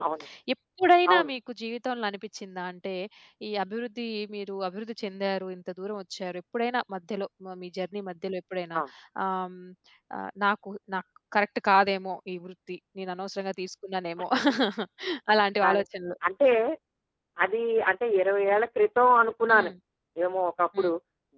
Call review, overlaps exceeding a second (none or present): none